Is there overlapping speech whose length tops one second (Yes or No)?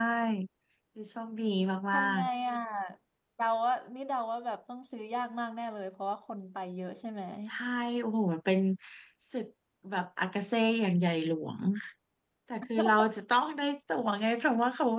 No